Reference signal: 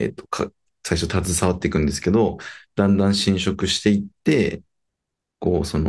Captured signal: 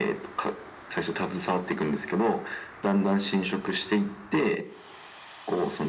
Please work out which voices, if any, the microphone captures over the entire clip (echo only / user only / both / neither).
echo only